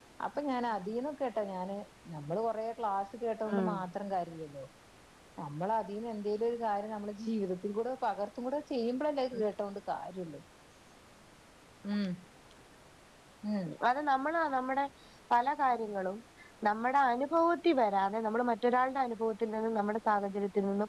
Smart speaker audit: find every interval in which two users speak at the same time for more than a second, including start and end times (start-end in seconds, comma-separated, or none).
none